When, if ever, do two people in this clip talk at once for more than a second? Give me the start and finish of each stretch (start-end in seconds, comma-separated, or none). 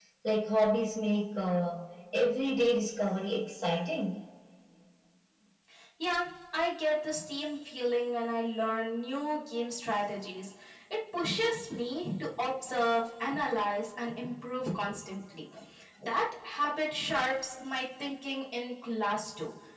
none